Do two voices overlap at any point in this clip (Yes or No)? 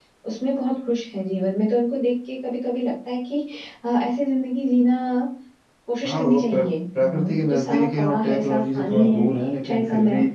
Yes